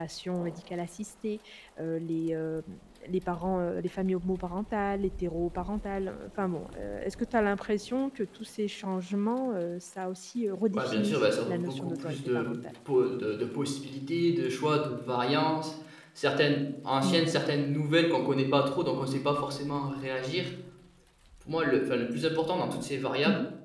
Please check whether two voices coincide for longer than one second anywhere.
Yes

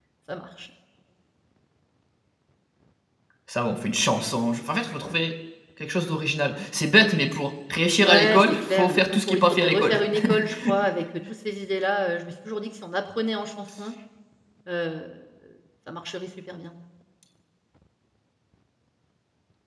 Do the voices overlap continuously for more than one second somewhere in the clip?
Yes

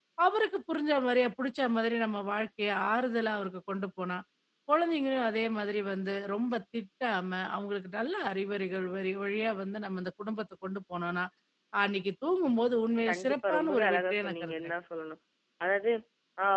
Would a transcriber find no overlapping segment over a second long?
No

